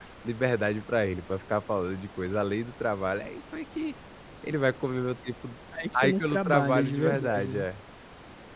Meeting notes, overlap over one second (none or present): present